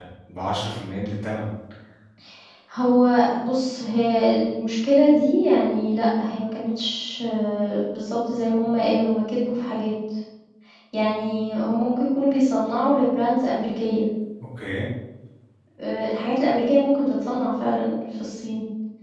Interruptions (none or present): none